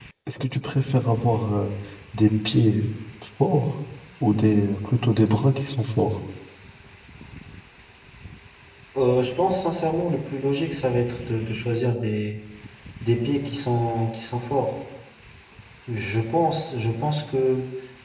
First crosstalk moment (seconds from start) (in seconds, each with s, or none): none